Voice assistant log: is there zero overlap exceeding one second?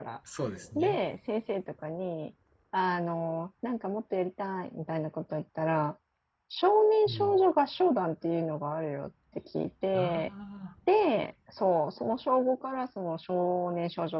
Yes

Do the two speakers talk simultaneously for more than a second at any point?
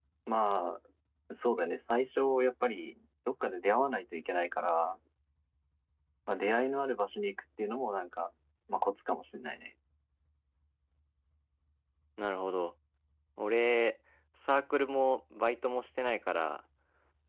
No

